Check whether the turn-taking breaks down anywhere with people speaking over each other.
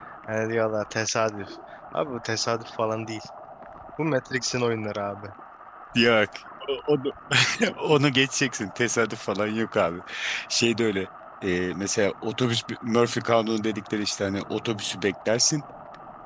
No

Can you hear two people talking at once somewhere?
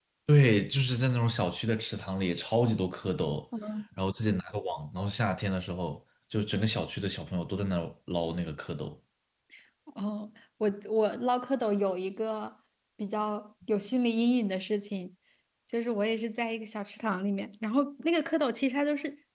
No

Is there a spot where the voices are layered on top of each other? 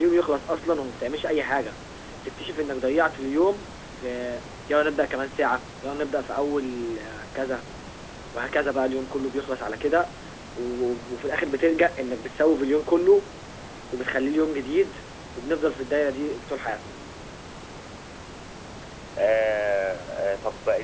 No

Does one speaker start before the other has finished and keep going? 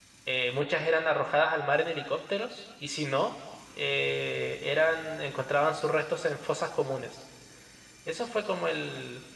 No

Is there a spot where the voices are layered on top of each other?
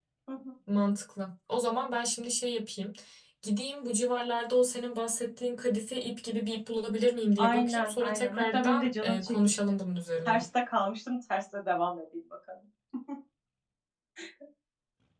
Yes, from 7.4 s

